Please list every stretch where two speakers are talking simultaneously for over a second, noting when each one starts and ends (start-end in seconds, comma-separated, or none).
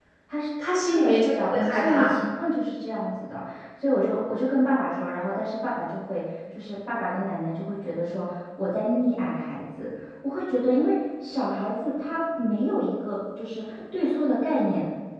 0.8-2.1